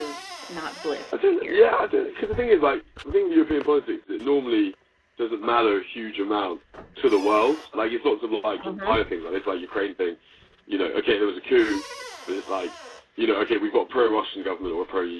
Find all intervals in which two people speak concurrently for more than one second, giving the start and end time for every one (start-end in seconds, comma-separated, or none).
none